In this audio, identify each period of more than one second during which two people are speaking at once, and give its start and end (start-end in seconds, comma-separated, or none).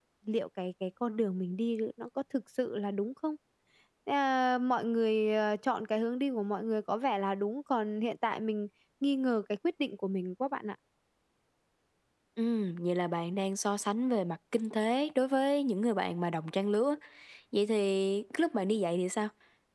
none